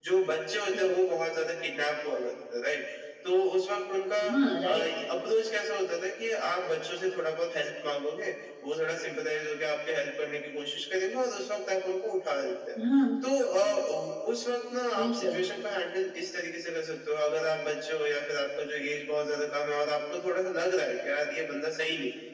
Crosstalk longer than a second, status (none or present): none